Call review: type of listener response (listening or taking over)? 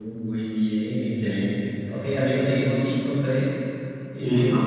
taking over